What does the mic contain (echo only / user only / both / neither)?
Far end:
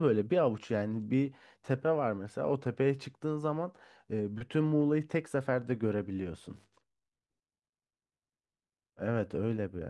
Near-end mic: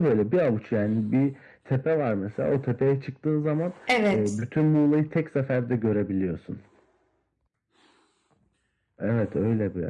both